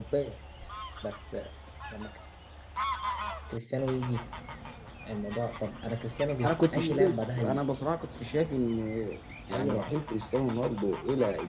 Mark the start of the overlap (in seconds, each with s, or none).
6.4 s